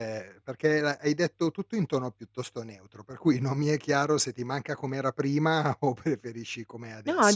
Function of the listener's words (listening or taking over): taking over